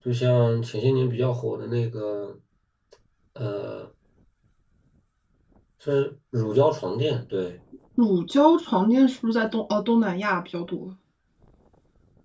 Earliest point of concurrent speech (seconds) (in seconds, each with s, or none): none